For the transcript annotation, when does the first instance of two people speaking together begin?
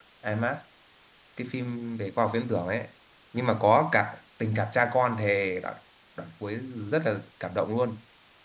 none

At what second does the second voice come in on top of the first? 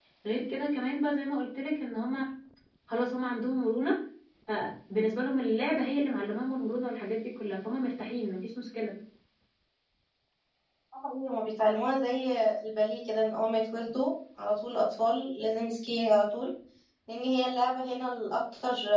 none

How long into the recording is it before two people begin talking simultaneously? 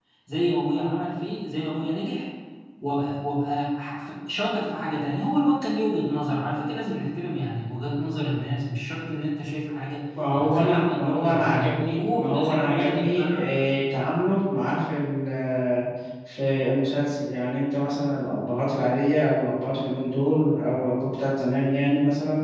10.1 s

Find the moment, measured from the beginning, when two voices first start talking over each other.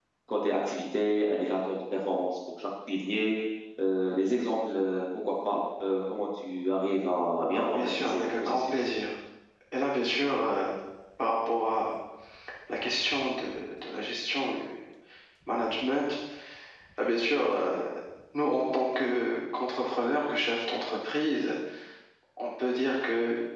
7.5 s

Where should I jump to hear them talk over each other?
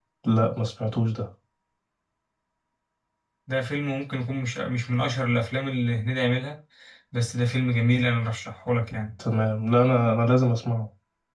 none

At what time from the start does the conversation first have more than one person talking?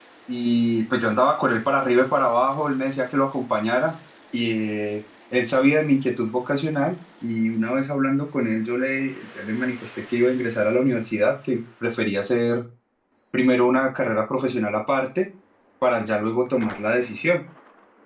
none

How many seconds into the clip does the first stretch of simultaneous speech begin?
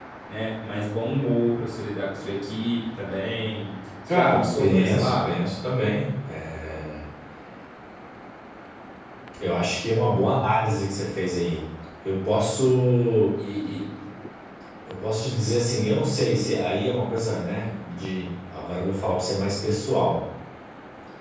4.1 s

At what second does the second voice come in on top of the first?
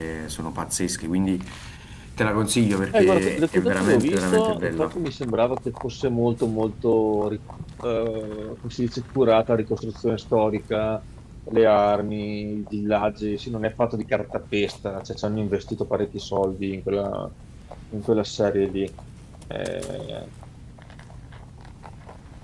2.9 s

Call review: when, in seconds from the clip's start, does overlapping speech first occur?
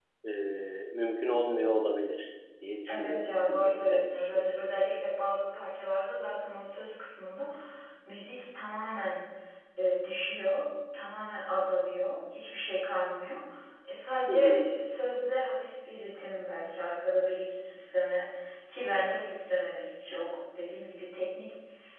2.9 s

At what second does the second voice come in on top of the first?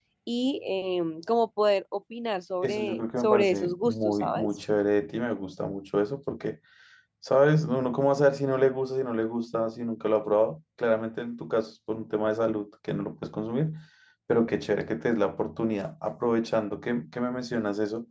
2.6 s

